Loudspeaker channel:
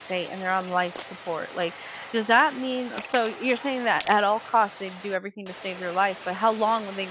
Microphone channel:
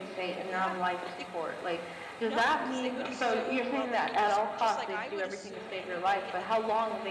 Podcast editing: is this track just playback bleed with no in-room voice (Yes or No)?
No